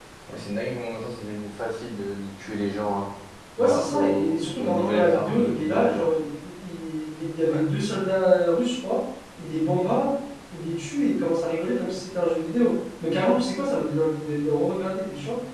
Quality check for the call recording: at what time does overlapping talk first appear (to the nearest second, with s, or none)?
4 s